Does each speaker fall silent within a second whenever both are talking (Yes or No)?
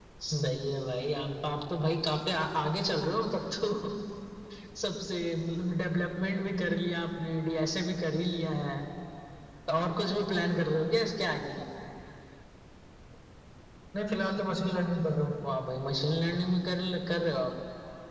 Yes